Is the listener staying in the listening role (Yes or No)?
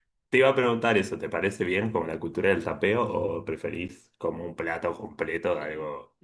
No